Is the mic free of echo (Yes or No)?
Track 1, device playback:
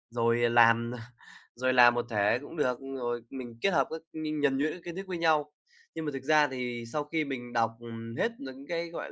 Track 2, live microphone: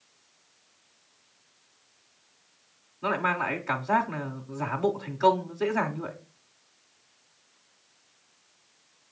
Yes